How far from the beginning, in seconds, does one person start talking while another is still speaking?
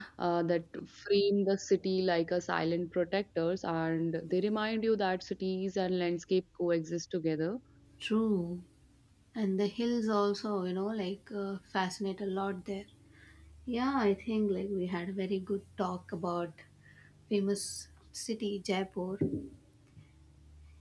none

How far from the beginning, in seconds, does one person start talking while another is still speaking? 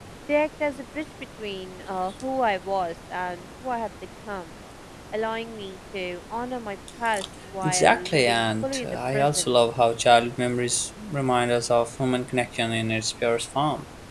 7.6 s

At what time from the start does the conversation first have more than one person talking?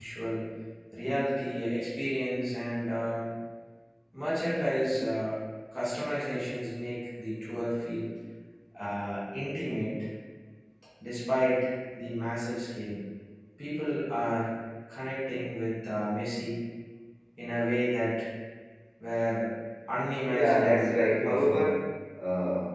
20.3 s

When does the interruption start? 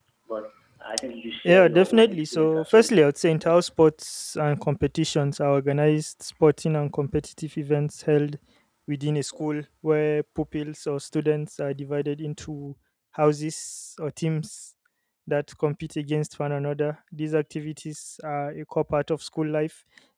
1.4 s

